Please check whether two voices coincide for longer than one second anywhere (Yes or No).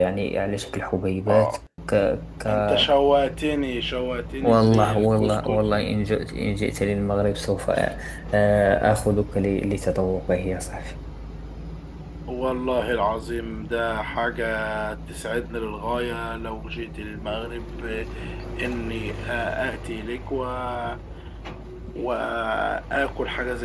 Yes